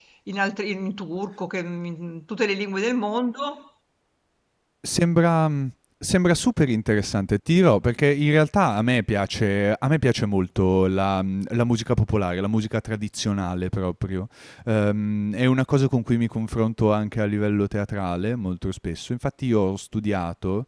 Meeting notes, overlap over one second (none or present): none